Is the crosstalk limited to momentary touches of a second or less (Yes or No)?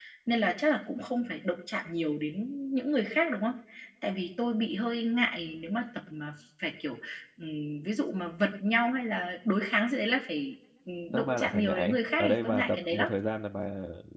No